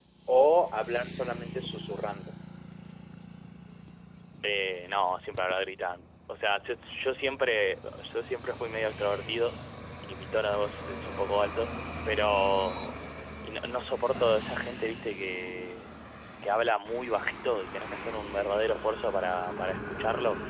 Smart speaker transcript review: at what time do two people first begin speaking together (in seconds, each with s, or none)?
none